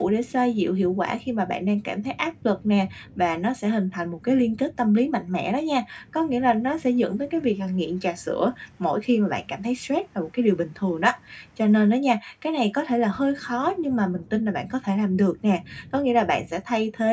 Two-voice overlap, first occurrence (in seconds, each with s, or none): none